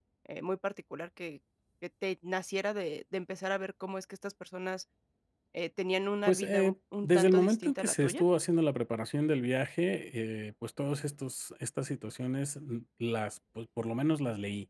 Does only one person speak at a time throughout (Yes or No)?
No